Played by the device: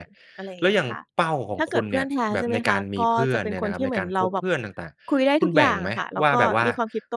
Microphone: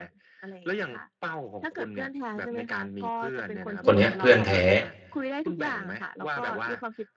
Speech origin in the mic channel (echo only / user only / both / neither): both